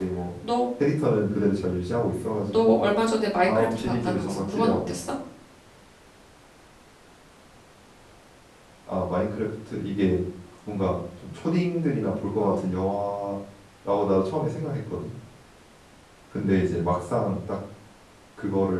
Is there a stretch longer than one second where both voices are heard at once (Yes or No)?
Yes